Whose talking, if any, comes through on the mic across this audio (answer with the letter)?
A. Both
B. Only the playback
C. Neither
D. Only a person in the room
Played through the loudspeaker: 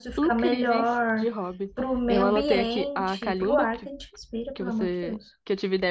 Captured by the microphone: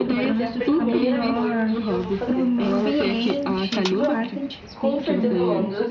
A